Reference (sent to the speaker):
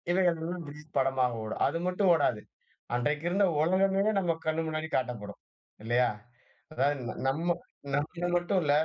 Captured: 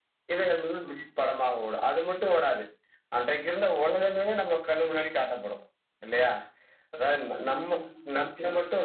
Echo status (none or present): present